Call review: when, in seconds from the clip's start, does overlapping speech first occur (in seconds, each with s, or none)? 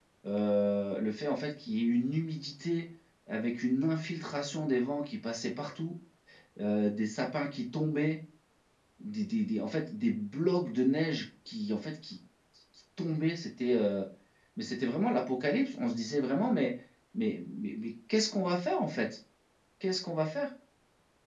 none